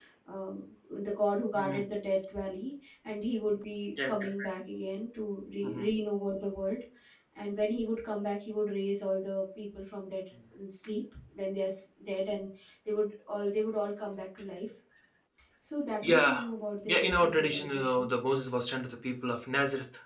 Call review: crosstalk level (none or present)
present